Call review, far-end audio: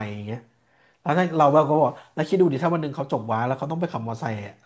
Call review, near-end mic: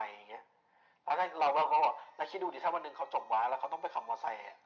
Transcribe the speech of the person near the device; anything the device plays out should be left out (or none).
none